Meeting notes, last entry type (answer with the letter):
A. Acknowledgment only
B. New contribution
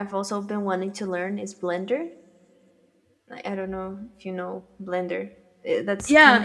B